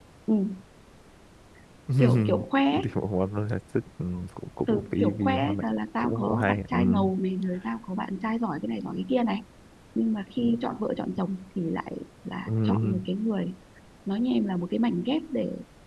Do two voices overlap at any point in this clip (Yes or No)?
Yes